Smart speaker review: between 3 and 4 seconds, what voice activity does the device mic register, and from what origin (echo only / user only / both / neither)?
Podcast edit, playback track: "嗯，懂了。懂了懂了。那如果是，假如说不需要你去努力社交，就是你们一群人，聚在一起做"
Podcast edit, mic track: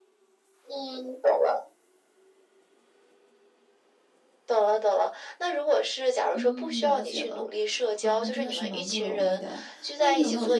neither